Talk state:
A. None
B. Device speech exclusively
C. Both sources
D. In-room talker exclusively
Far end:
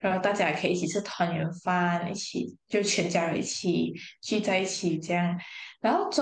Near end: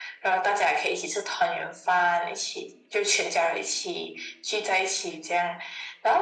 B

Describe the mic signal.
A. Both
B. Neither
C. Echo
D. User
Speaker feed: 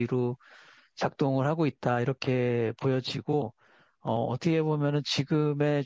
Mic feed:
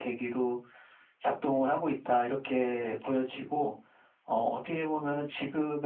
C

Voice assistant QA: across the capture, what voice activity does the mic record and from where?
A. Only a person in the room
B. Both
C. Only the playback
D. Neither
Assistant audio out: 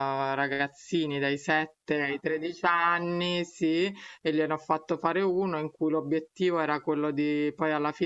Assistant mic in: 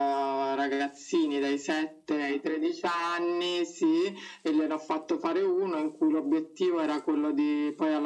C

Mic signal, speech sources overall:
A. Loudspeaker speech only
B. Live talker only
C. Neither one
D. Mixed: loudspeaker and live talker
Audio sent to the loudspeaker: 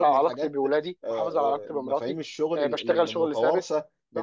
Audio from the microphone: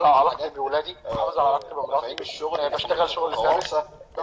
A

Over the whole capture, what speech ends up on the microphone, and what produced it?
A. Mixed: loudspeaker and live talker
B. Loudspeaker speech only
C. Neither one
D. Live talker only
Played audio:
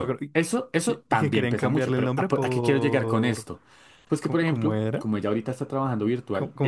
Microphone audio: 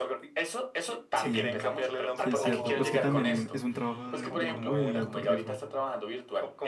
A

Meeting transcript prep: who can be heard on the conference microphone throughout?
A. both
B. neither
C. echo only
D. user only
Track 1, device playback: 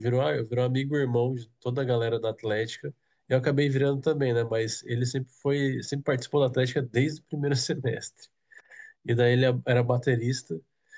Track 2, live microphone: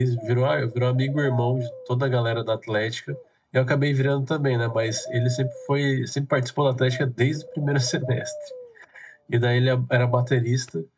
C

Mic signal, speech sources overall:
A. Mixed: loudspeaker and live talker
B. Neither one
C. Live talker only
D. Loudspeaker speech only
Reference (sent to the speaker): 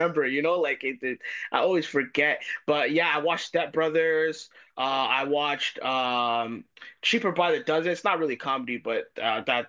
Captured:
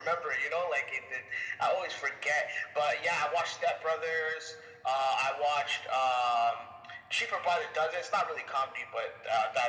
D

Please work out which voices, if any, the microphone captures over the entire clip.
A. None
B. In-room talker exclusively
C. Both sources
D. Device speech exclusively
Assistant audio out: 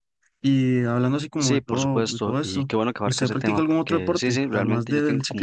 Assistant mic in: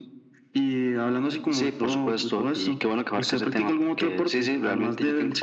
D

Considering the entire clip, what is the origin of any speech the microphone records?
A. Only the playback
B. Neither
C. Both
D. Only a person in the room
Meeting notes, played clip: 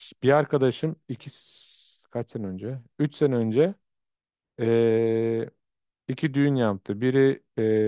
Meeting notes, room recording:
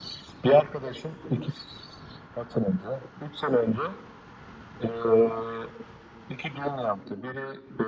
A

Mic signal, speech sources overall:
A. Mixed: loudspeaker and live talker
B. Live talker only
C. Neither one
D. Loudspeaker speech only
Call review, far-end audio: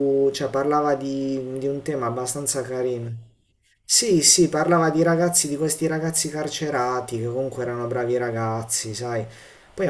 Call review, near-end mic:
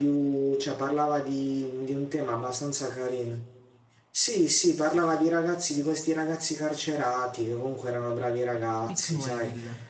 A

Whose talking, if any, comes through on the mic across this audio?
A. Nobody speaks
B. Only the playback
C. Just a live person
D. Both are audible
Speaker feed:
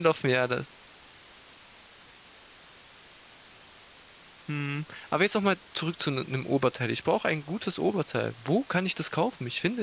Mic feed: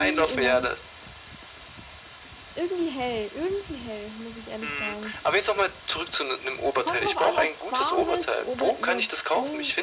D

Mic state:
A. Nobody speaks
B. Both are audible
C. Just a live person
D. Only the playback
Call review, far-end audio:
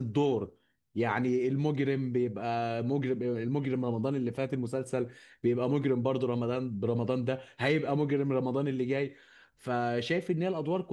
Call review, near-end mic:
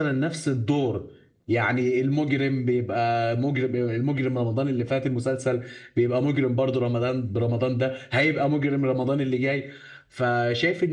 D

